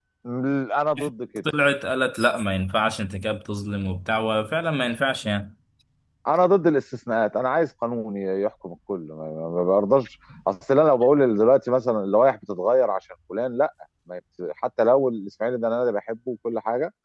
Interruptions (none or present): none